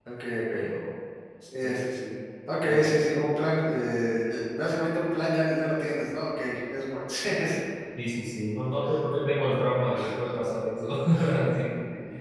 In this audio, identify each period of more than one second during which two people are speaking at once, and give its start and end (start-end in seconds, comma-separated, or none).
none